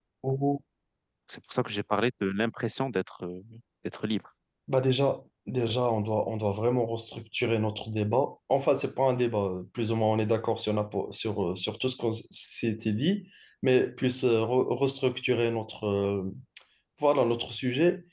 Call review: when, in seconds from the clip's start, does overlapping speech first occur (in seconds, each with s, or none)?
none